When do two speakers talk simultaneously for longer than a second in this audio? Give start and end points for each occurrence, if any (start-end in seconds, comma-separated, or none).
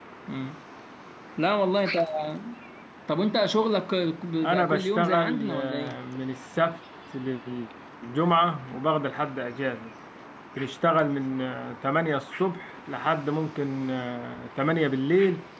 4.4-6.0